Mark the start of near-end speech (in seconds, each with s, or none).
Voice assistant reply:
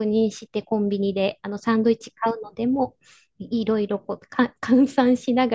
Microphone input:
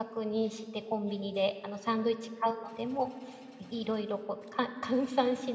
none